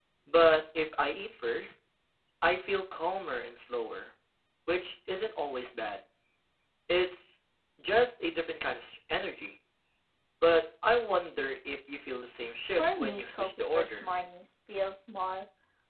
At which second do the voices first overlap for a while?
12.8 s

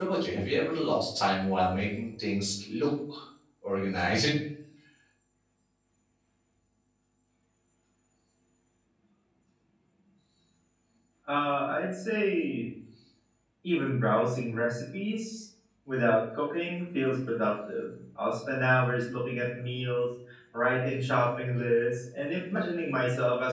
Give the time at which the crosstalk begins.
none

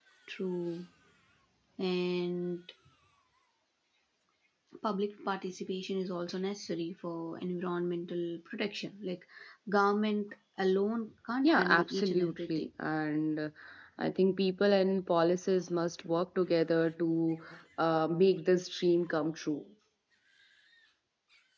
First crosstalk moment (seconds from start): 11.4 s

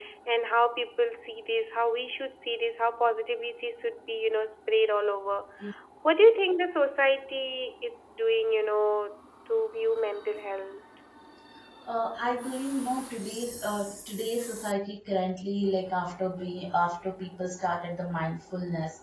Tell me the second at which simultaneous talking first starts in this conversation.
none

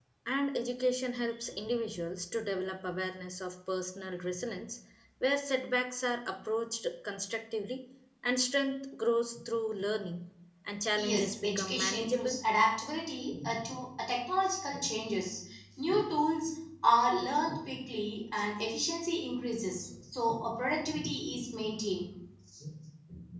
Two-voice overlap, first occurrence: 10.9 s

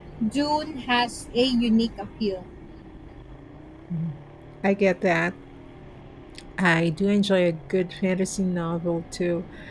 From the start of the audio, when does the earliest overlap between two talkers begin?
none

